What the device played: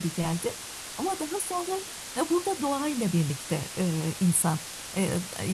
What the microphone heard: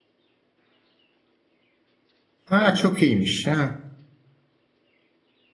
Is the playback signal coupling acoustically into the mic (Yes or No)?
No